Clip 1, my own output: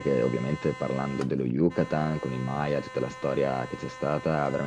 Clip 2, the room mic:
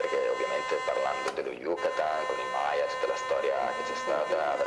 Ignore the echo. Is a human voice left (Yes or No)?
Yes